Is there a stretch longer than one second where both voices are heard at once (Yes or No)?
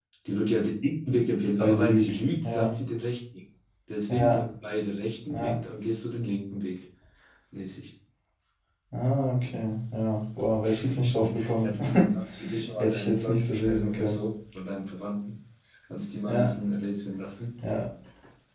Yes